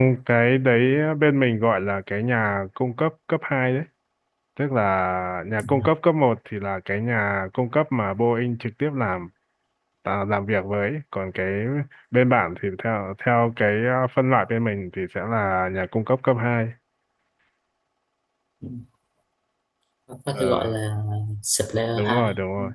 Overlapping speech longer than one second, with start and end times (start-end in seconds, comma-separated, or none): none